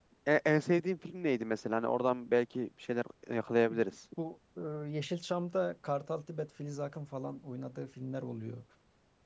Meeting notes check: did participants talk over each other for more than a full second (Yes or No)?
No